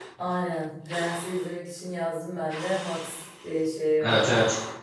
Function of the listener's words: taking over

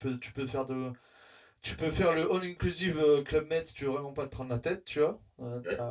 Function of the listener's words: listening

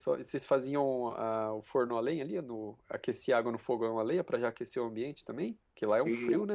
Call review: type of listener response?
taking over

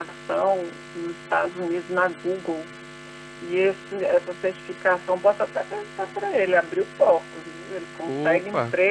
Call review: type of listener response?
listening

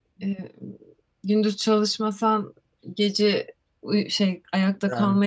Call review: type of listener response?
listening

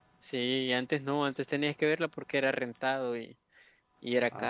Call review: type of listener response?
taking over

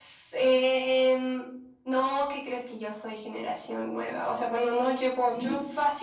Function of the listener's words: listening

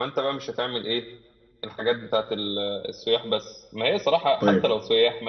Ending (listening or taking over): listening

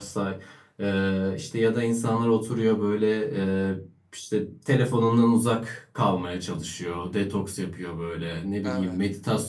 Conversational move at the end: listening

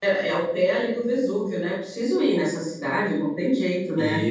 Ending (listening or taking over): taking over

